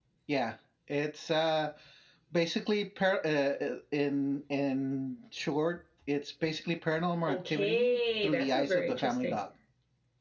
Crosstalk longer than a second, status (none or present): present